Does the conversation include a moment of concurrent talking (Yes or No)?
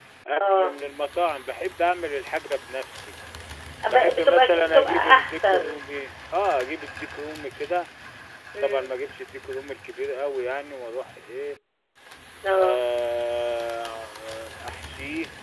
Yes